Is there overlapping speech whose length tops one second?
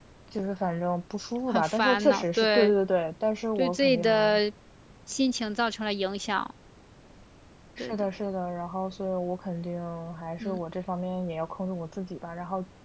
Yes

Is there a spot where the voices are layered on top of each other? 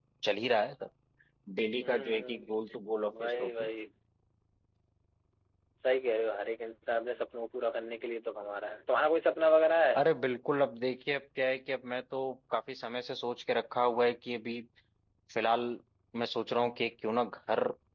Yes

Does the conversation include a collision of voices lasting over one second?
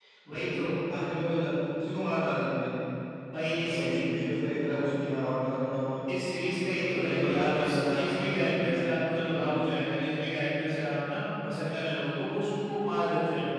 Yes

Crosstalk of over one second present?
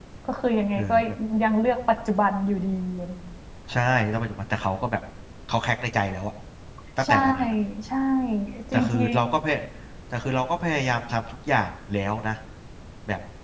No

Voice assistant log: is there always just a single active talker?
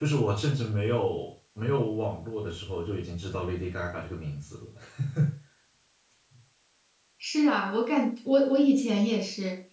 Yes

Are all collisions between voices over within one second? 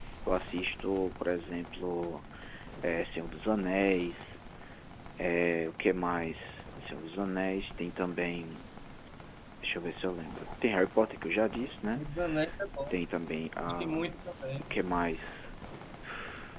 Yes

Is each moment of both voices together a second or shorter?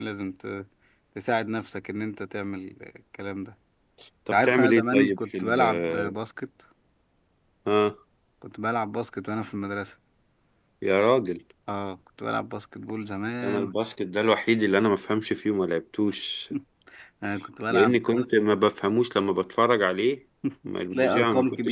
No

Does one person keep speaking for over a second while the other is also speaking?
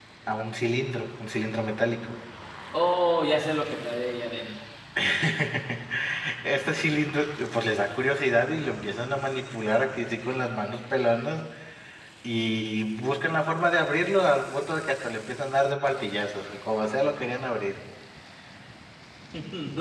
No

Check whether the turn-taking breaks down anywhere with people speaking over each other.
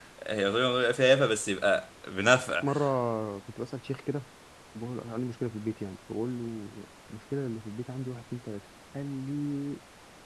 No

